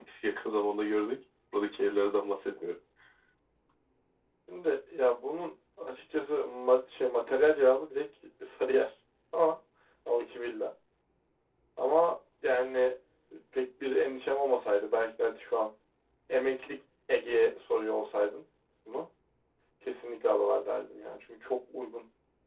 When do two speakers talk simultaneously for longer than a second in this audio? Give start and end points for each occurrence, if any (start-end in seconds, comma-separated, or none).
none